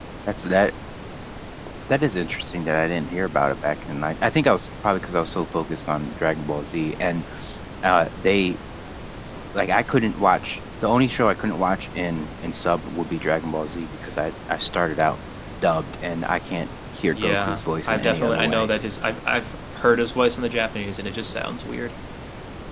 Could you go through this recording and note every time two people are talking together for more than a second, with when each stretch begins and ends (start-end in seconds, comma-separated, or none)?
17.1-18.7